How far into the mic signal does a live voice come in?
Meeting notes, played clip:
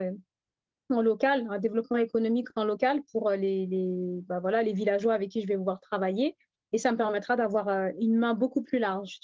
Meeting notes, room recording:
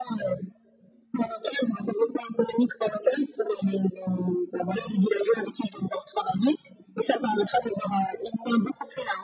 none

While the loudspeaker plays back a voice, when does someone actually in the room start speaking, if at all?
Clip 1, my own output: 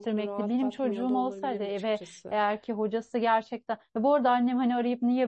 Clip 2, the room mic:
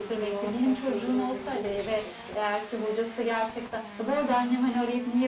none

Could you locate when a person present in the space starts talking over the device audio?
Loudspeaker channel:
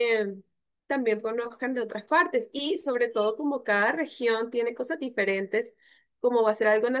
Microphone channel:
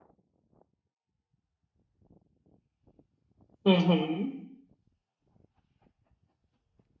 4 s

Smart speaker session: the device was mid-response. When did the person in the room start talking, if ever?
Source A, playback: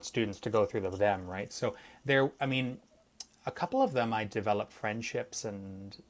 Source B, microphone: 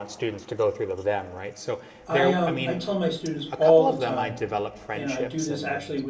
2 s

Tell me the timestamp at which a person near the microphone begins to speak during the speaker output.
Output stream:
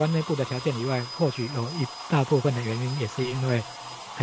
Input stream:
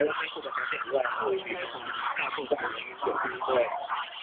1 s

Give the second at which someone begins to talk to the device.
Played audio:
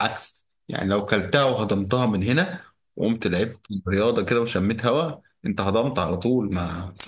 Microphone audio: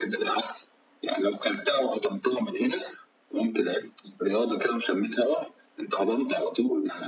none

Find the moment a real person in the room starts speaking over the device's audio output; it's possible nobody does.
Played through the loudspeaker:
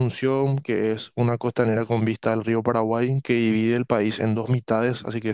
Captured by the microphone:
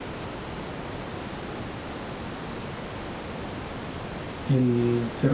4 s

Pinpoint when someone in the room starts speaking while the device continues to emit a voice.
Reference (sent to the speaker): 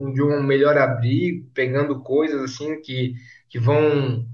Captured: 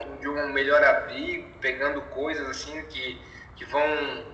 none

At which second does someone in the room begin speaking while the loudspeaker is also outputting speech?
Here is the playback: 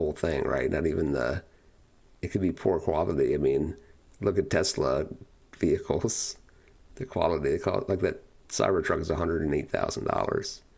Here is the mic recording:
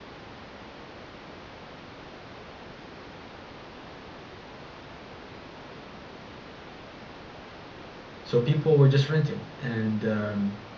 8 s

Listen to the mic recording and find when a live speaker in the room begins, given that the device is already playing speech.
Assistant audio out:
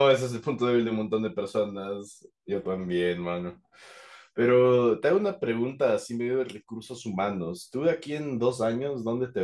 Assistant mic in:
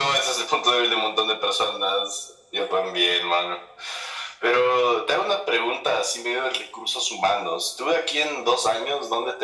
none

